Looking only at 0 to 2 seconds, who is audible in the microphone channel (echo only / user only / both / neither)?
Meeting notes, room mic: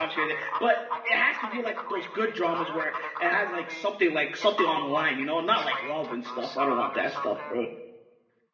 both